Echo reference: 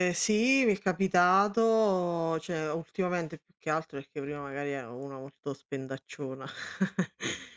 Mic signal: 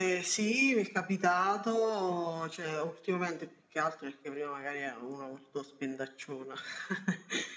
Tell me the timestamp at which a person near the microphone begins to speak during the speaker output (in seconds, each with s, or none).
none